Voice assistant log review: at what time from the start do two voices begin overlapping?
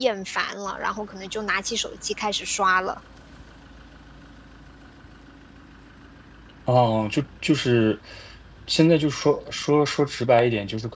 none

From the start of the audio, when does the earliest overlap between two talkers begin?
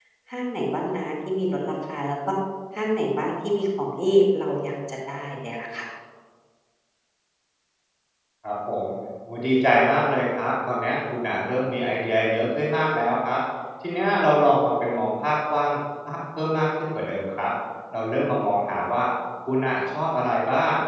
none

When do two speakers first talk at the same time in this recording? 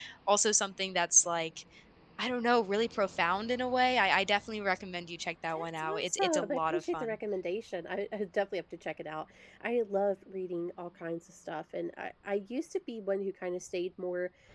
5.5 s

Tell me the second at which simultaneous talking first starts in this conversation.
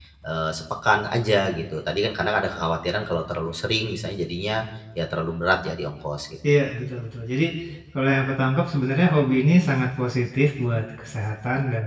none

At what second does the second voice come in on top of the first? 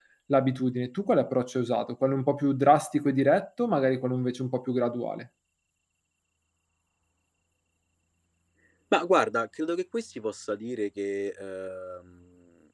none

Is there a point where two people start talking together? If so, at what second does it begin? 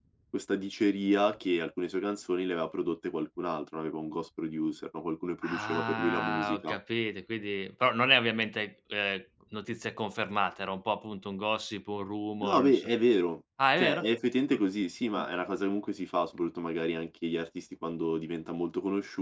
5.4 s

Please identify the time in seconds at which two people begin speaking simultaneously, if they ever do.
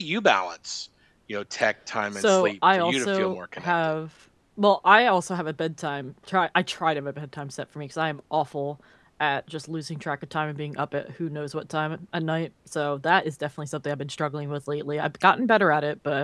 2.2 s

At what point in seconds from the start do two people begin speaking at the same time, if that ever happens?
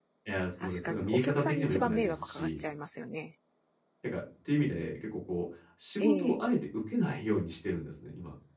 0.6 s

